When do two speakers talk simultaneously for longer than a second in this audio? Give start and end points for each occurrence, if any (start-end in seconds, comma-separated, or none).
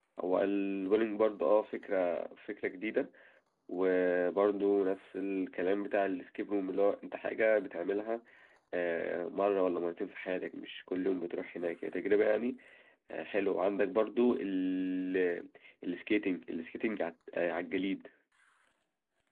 none